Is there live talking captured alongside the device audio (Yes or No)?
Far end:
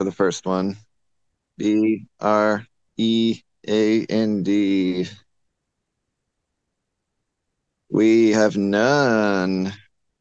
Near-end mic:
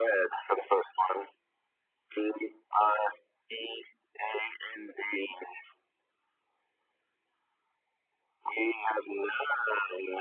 No